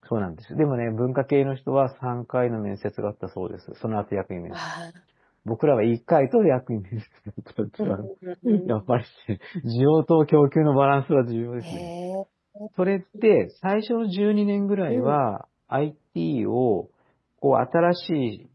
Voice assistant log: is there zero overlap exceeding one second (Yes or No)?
Yes